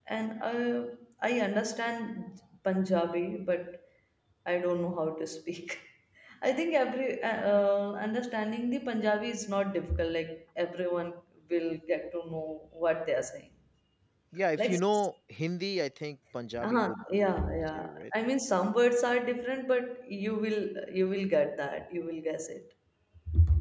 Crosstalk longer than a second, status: present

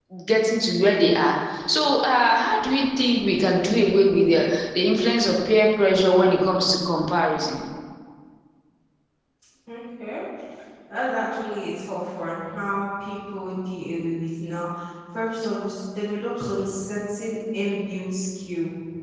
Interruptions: none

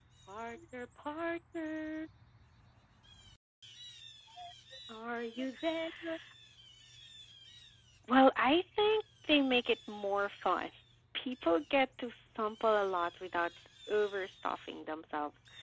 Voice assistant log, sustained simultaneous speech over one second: none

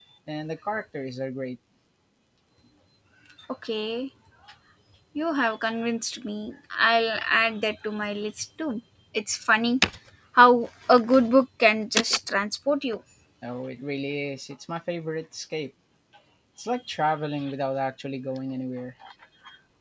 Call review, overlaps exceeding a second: none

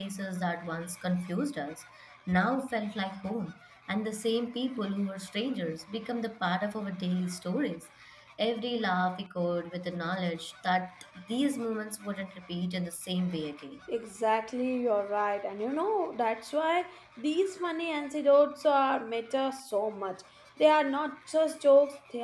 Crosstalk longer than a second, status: none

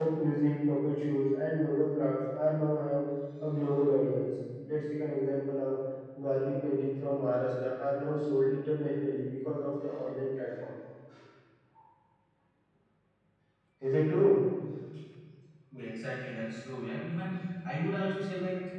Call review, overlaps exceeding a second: none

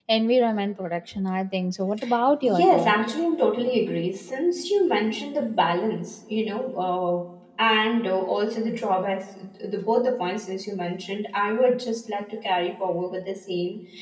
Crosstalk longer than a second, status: none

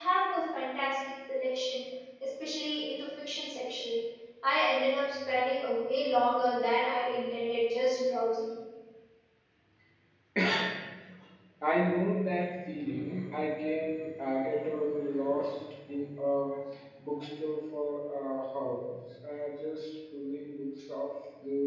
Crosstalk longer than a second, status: none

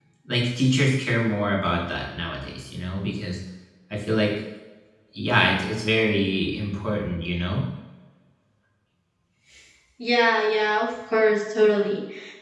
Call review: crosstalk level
none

